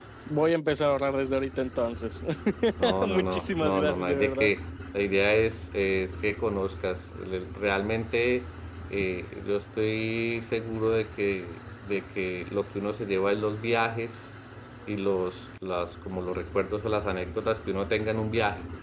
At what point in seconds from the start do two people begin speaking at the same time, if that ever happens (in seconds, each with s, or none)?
3.1 s